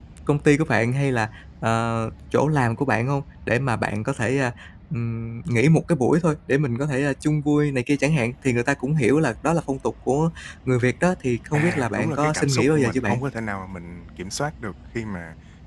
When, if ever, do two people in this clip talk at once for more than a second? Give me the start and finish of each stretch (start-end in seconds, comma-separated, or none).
11.5-13.2